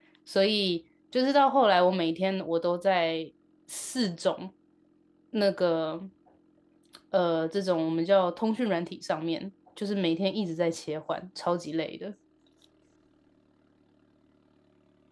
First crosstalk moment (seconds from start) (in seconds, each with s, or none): none